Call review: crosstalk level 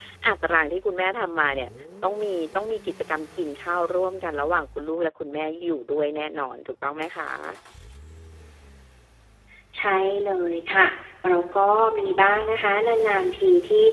none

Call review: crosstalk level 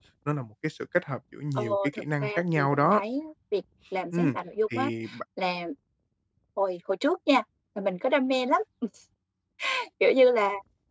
present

